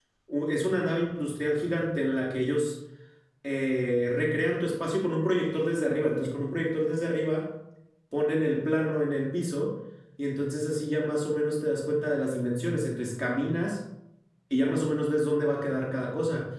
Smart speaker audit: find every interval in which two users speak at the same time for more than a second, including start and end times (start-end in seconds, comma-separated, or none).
none